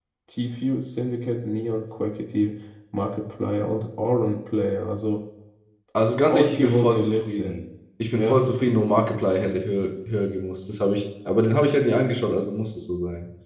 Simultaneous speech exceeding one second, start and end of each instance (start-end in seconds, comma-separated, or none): 6.3-7.6